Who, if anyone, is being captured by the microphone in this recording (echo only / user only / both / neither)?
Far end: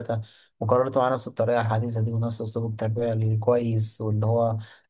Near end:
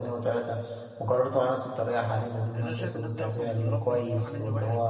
both